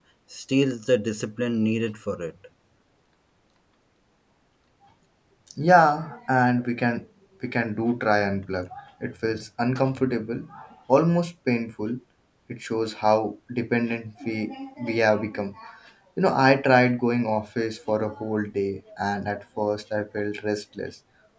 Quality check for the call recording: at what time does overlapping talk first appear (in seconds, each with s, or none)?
none